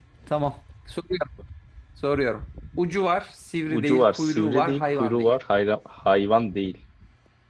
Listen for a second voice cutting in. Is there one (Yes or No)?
Yes